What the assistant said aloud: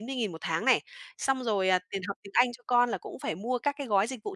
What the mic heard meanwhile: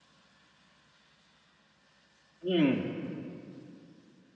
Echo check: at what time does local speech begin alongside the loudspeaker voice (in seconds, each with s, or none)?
2.4 s